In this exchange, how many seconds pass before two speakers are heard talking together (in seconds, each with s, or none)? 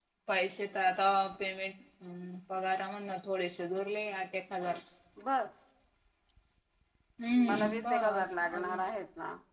7.5 s